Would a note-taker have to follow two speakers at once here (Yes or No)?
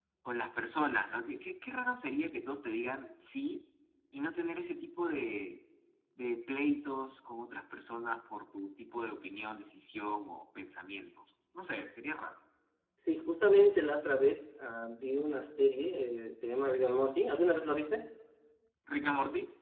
No